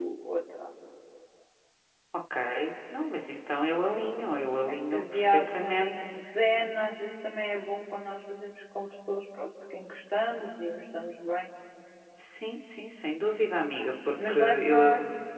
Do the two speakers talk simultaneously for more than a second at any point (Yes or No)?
Yes